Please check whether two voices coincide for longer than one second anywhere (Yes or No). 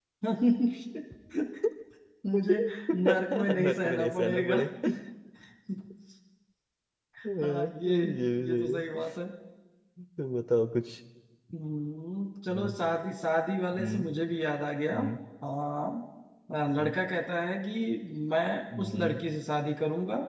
Yes